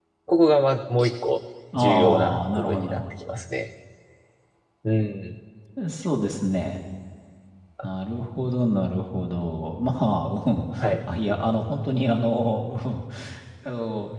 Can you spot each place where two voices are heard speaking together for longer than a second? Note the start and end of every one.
1.8-3.1

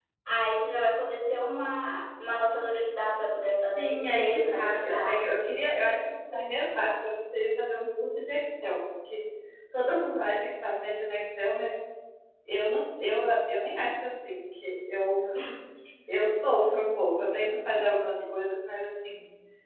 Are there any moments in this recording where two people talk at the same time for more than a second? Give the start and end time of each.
3.8-5.4

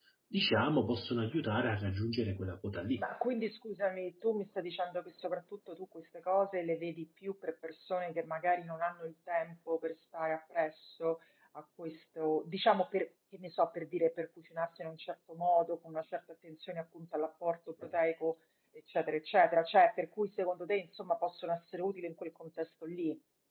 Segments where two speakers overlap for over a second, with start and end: none

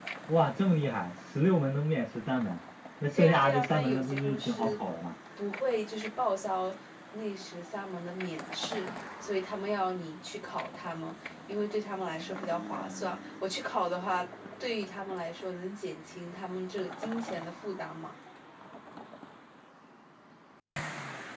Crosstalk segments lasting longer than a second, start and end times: 3.1-4.8

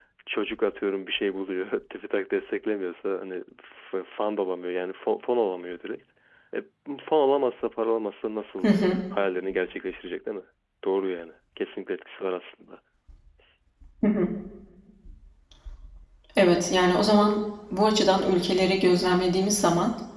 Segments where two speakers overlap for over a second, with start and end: none

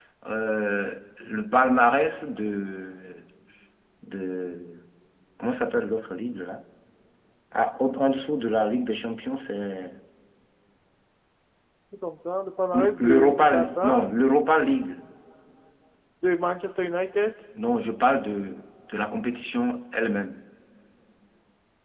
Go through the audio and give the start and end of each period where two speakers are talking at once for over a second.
12.7-14.0

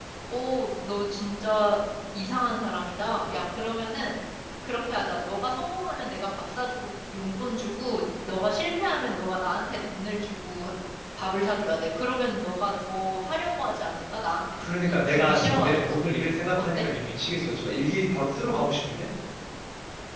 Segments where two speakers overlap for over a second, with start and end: 14.6-15.9

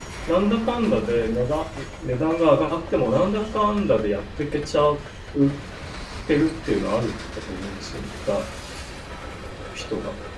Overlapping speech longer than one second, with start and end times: none

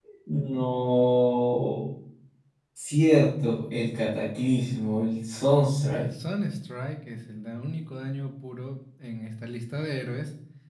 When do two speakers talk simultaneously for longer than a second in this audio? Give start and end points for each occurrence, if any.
none

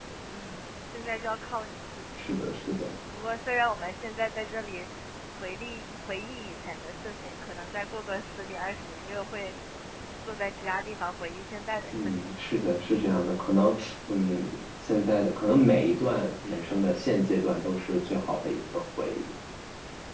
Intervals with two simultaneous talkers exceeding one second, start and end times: none

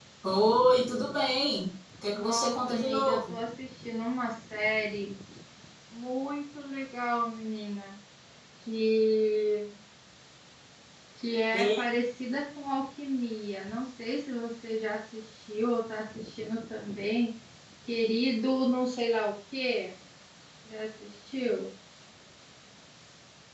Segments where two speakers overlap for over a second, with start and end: 2.1-3.4

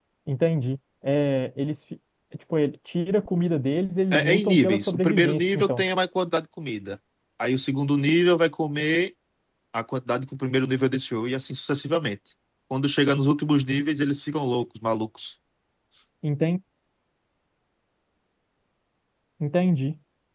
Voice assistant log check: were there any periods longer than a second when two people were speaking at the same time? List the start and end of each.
4.1-5.8

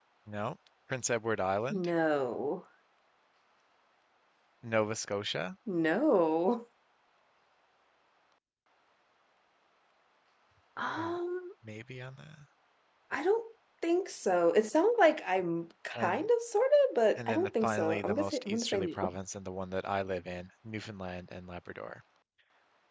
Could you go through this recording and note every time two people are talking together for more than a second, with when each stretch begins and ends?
17.2-19.1

